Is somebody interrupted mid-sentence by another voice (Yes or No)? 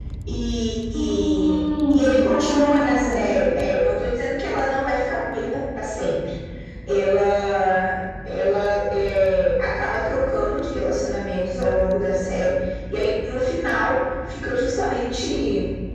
Yes